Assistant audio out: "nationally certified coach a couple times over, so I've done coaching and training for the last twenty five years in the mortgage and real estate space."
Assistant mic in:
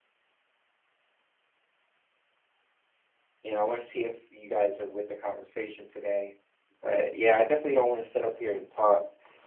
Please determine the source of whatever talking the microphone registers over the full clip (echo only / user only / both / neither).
user only